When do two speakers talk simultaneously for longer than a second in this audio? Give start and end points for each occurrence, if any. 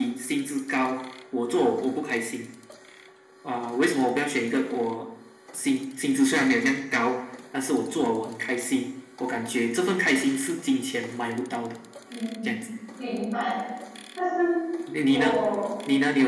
none

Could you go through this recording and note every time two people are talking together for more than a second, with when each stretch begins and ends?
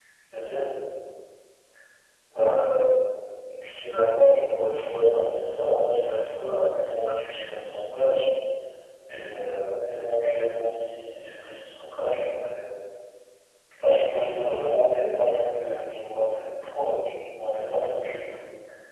4.6-6.0

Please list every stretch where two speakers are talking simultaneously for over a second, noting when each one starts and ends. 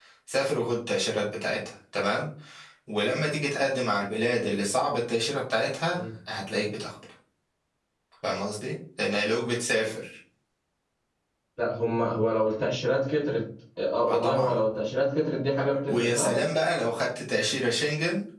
none

